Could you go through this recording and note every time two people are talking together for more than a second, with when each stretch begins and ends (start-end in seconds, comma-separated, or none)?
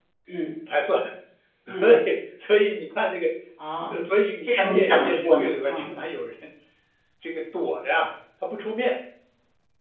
4.5-5.9